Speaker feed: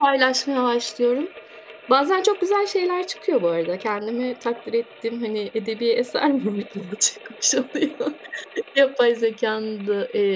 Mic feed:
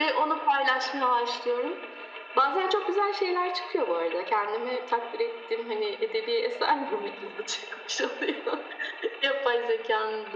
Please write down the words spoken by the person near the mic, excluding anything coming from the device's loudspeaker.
none

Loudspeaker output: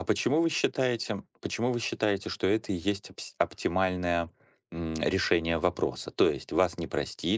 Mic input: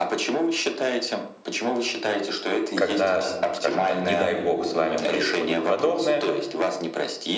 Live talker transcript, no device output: когда, скажем так, не дай бог, с вами происходит подобное

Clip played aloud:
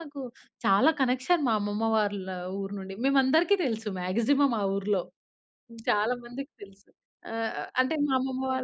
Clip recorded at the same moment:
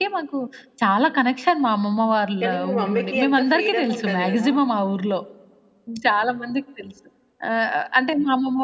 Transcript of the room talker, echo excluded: కానీ, మీ మమ్మీ‌కి ఎంత ఫ్రీడముంటది గదా!

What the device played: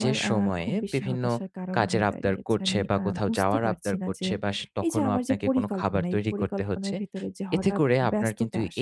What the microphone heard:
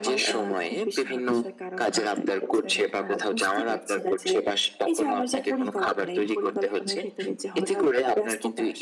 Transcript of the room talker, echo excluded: none

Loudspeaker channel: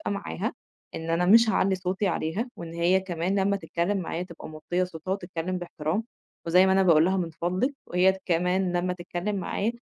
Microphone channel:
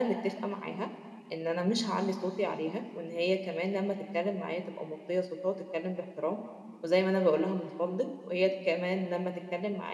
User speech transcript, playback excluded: none

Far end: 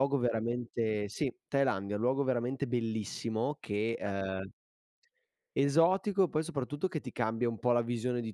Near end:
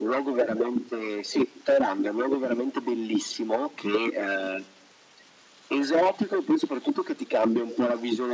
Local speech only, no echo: none

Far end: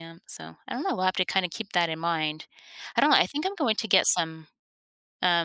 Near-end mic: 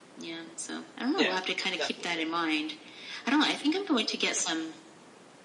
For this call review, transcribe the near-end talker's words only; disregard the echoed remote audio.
Yeah. Definitely.

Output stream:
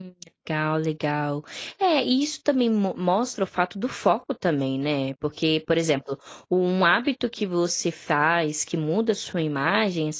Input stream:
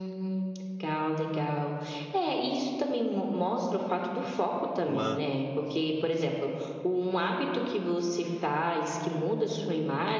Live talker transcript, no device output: Uma

